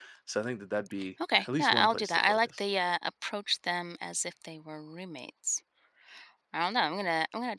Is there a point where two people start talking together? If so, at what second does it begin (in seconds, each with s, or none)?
1.2 s